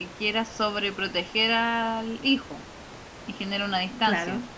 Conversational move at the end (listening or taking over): listening